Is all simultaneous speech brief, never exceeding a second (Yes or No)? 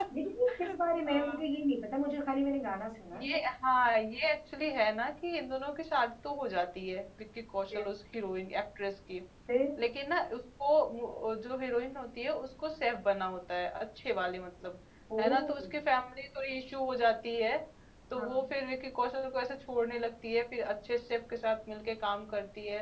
Yes